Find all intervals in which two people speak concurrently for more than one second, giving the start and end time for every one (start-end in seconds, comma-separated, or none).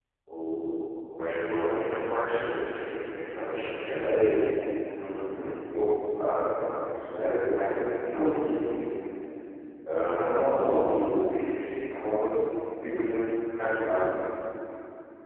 none